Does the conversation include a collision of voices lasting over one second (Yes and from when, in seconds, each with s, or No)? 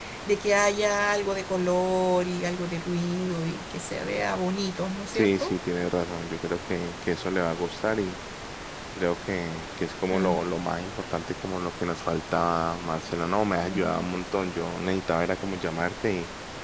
No